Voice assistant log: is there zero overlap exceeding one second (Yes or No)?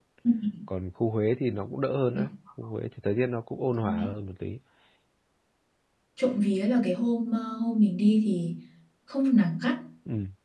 Yes